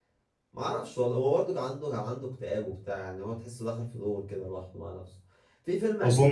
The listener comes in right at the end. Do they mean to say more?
No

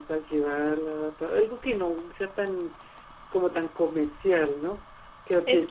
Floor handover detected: Yes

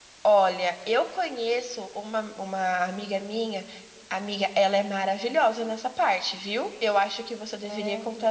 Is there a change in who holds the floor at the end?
No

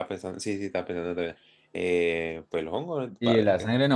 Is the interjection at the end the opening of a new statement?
Yes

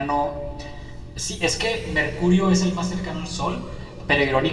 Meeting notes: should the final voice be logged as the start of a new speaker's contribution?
No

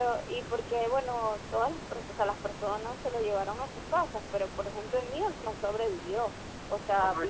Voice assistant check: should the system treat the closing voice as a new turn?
No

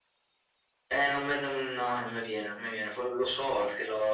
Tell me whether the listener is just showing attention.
Yes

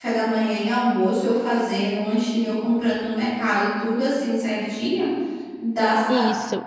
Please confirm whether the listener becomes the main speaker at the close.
Yes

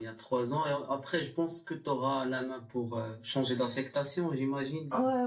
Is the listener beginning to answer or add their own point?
Yes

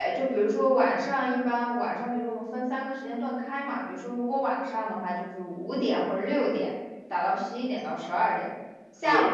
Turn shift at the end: No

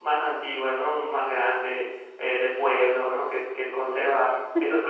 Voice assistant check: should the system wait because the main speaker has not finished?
Yes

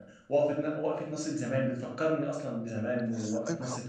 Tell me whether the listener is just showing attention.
No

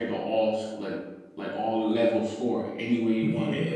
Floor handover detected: No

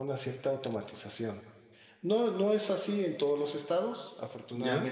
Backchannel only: Yes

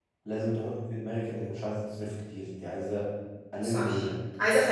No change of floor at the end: No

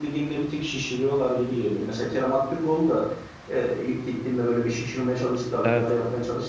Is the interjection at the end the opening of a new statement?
No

